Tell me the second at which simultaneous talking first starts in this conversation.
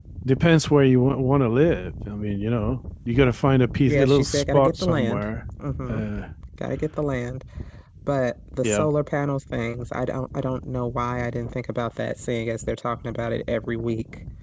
3.9 s

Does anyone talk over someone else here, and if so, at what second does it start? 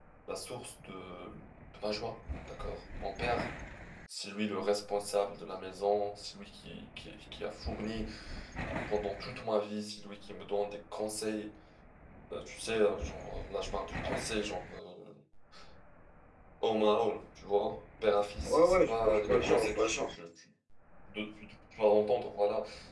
18.4 s

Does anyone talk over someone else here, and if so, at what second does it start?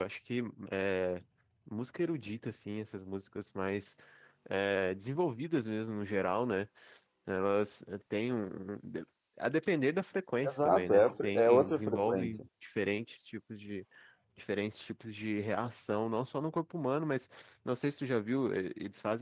10.4 s

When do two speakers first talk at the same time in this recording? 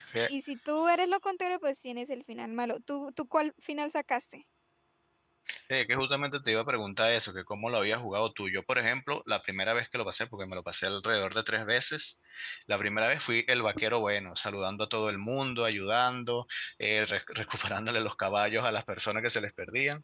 none

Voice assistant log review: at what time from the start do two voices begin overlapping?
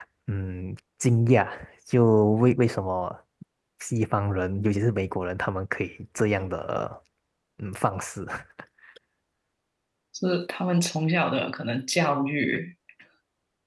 none

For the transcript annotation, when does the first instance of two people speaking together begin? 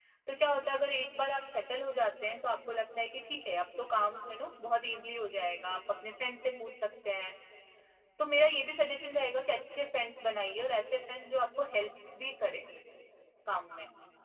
none

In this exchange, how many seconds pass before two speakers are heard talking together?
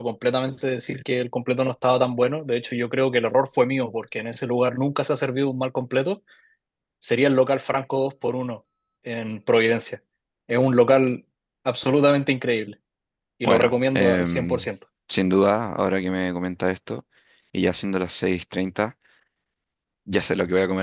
13.4 s

